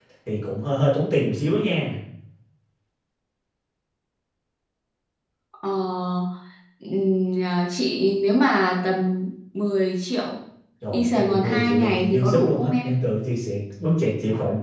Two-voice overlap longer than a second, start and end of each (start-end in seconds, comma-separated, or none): 10.9-13.0